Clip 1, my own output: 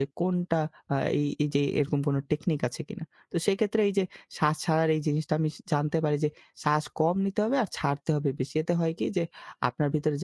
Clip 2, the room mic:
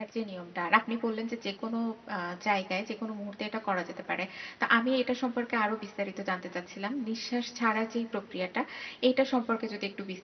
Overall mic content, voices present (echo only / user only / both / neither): user only